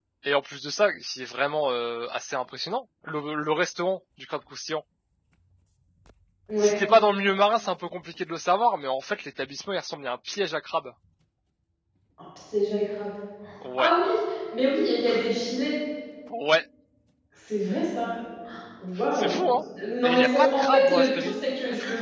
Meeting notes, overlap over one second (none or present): present